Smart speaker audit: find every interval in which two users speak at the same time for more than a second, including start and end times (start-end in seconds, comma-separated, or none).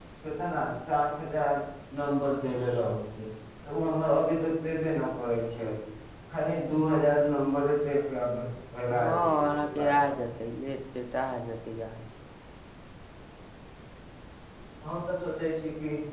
8.9-10.1